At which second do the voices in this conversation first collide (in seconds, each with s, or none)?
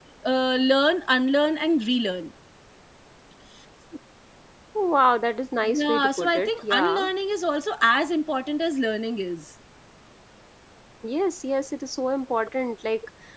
5.6 s